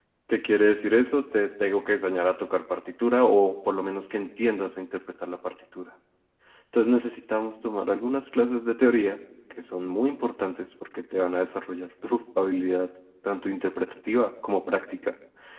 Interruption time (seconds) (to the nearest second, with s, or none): none